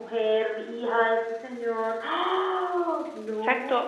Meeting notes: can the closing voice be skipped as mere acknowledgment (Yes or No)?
No